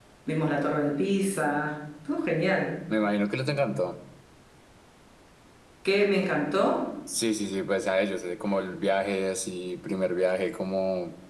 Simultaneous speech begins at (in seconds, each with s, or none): none